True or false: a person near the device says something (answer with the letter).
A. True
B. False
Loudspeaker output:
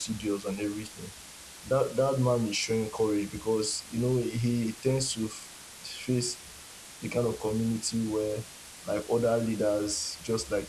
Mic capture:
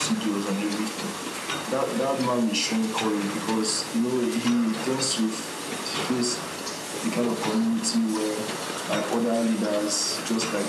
B